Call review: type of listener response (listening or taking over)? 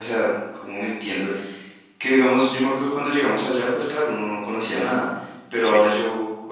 listening